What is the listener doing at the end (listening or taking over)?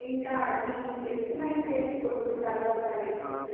taking over